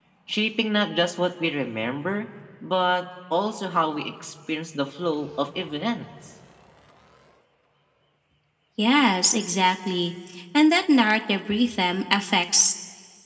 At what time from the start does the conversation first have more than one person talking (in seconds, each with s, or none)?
none